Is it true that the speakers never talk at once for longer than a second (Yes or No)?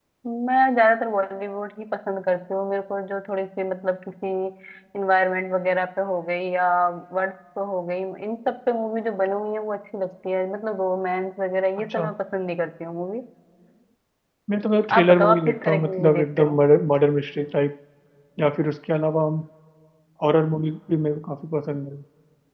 No